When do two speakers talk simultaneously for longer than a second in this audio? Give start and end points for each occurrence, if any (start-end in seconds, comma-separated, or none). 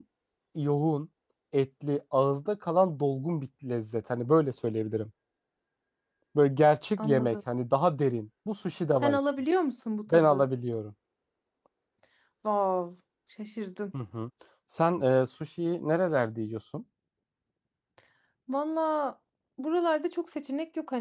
none